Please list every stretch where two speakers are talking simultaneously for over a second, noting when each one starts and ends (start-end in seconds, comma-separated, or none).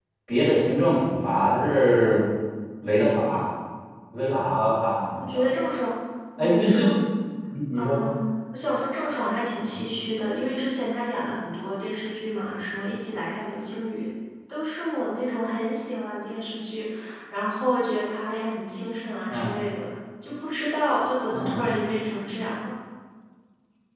none